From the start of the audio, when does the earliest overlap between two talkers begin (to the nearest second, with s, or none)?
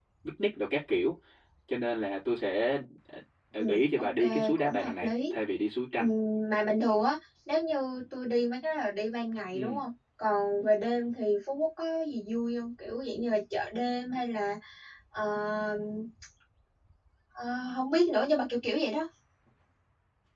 4 s